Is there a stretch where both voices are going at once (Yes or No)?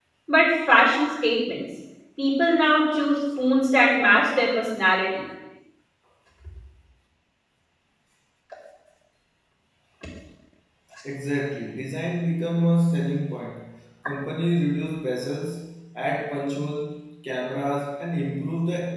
No